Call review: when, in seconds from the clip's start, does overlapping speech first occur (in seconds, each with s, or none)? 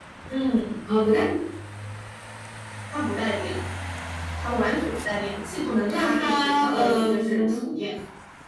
5.9 s